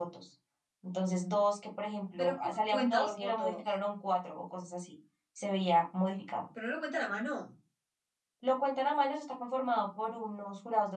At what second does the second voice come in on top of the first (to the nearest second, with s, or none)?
2 s